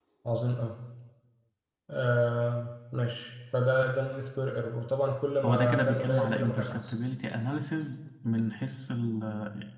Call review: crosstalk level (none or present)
present